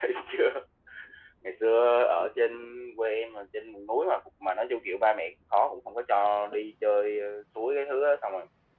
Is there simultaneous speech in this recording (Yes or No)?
No